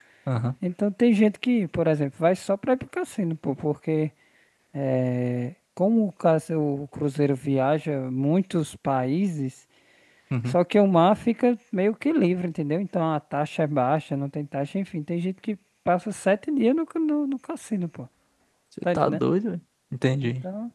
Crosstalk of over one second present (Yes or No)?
No